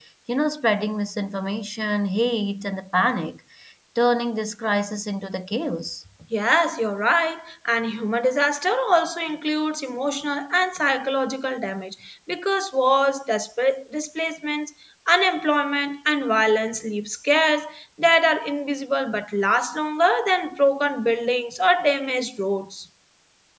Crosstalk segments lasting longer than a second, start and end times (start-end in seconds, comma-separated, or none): none